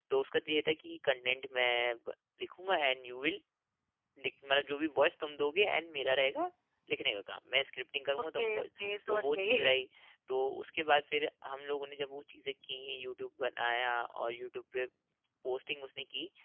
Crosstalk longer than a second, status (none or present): present